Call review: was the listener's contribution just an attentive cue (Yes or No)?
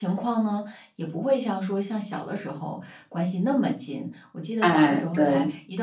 Yes